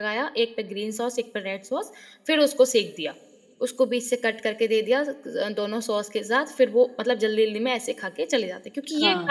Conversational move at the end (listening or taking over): taking over